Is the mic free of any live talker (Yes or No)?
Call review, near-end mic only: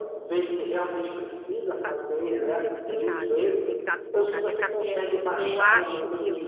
No